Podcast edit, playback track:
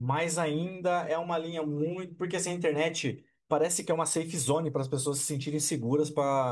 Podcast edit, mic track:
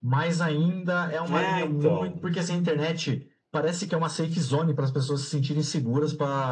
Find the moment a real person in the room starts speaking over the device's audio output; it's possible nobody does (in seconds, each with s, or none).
1.3 s